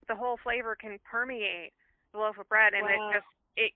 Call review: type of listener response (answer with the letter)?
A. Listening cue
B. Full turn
A